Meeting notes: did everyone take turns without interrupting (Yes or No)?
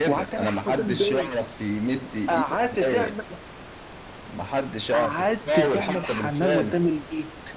No